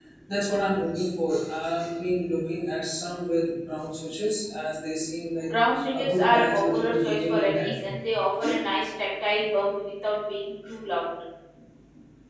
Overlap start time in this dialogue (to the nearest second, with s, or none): 6 s